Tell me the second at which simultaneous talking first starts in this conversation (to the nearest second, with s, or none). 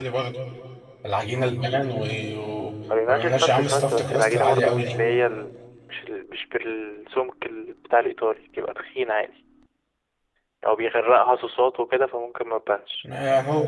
3 s